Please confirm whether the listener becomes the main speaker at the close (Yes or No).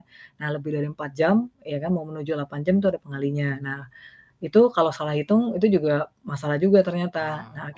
No